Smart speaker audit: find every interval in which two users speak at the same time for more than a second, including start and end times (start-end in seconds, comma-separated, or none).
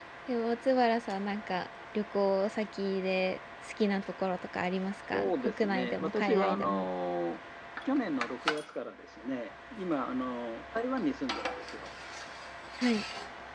5.1-6.9